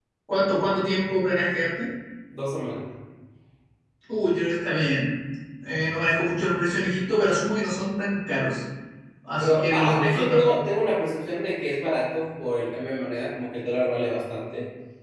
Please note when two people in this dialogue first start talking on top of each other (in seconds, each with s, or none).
9.4 s